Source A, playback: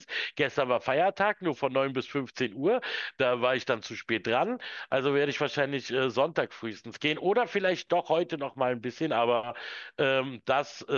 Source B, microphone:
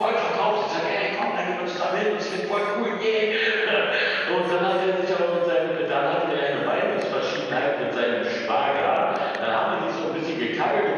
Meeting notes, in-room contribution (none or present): present